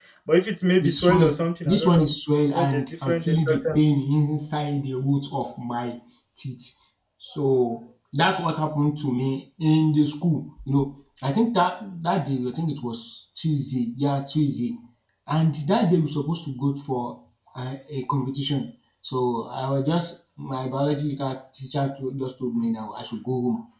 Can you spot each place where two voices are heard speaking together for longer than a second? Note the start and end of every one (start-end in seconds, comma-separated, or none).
0.8-2.1, 2.5-3.8